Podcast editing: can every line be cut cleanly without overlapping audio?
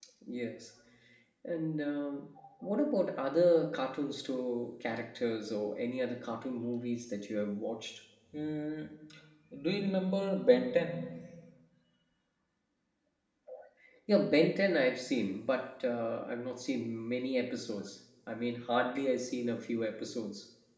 Yes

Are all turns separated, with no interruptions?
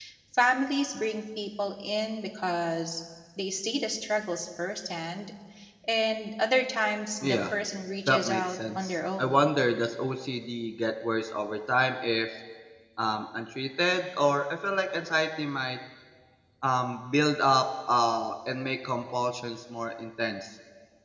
No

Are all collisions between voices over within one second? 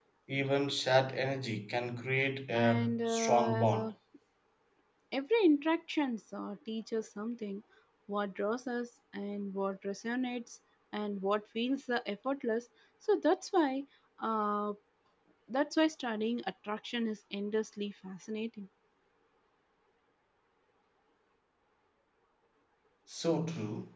No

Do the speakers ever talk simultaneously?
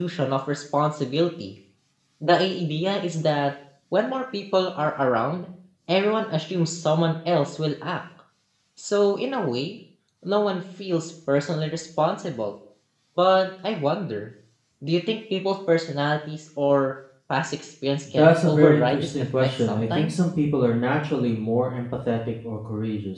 Yes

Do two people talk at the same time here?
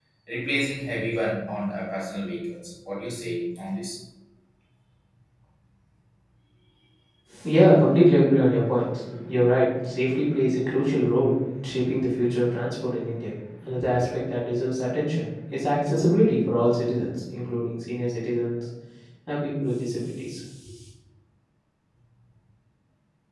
No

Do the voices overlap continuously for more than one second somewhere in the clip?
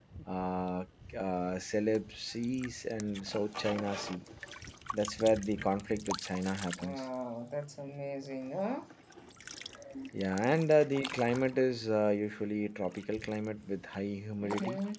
No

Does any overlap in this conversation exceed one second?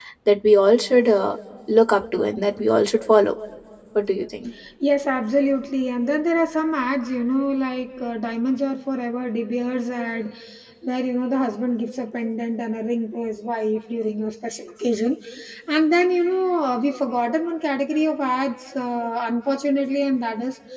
No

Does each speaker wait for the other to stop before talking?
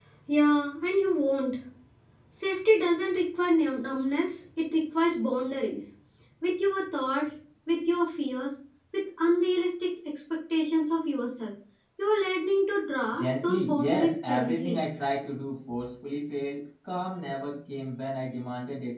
No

